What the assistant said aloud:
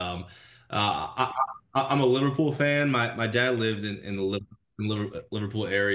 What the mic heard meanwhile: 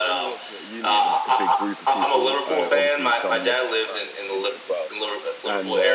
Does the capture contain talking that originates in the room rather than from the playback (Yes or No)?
Yes